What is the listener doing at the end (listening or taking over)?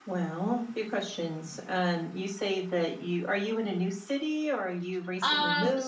taking over